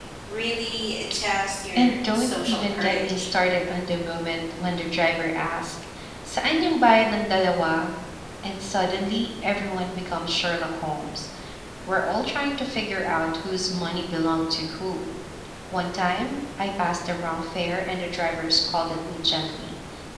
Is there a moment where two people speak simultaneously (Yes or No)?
Yes